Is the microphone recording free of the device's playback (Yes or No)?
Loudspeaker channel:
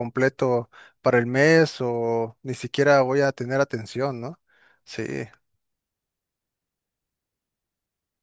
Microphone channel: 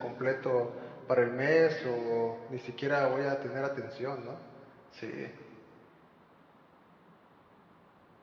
No